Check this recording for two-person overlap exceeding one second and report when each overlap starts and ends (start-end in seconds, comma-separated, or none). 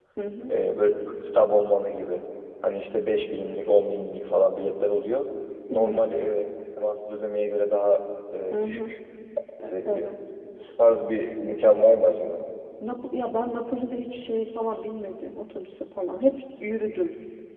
none